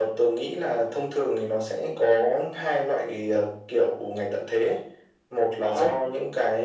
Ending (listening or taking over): listening